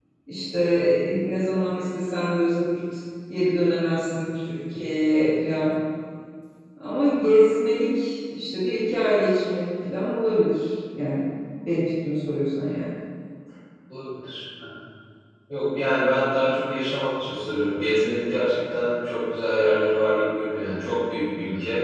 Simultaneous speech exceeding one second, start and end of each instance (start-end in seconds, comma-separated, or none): none